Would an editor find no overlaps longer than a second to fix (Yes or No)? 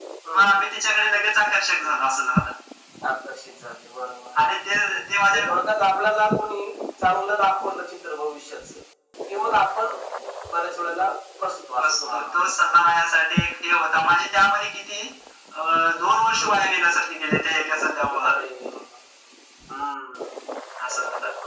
Yes